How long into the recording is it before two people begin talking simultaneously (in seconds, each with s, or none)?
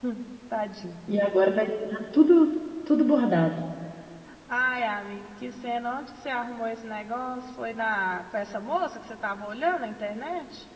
none